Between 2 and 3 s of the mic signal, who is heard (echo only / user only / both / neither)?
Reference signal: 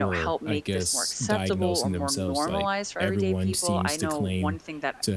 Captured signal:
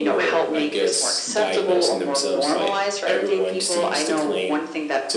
echo only